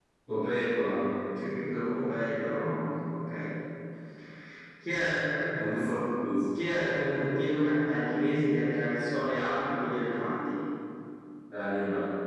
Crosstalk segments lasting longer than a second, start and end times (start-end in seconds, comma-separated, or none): none